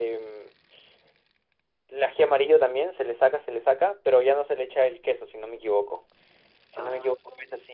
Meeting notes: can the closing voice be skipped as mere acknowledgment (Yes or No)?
Yes